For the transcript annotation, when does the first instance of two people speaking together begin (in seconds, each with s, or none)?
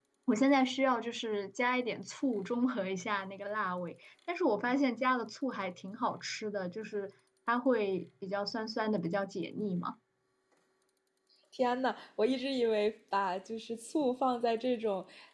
none